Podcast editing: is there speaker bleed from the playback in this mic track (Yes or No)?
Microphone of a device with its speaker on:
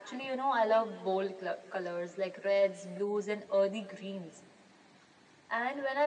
Yes